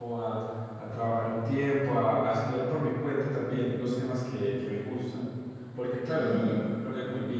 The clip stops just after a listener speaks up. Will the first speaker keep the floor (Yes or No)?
Yes